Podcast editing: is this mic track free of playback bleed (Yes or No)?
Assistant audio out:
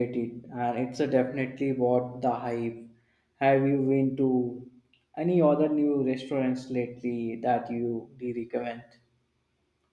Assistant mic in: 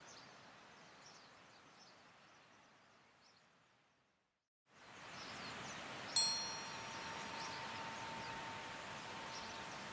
Yes